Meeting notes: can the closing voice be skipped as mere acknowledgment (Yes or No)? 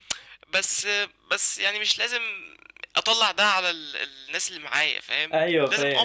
Yes